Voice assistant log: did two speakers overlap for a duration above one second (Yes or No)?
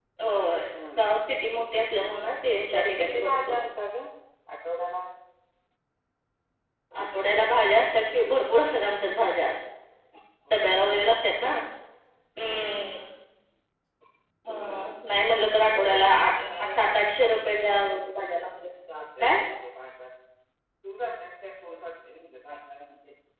Yes